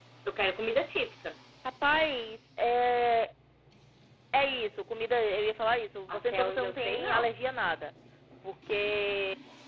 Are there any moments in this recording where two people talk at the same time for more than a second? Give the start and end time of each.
6.1-7.3

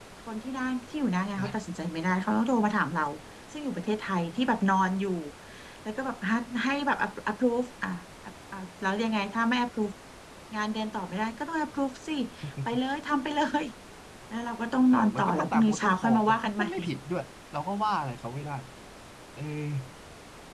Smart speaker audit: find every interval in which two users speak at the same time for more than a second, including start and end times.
14.9-16.7

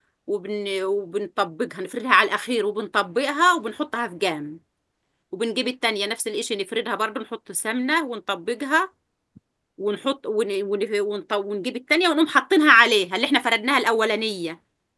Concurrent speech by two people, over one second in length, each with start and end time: none

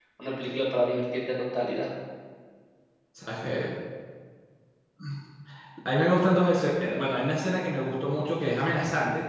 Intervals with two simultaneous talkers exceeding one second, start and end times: none

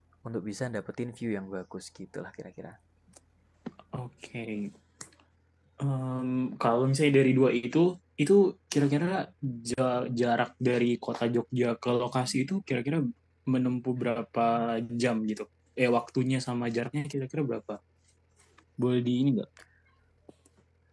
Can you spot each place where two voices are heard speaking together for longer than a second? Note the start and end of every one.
none

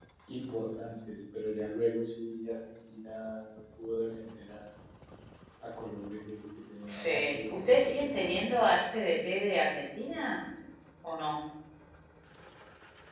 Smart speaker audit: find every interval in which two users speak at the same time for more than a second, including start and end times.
6.9-8.7

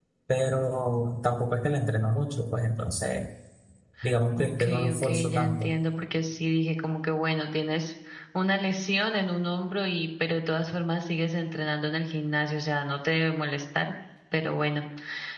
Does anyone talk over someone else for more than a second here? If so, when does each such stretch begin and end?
4.4-5.7

